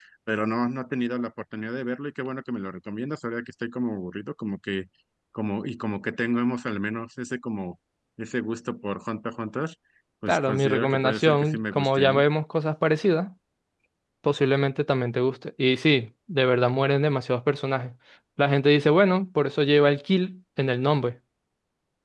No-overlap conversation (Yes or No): No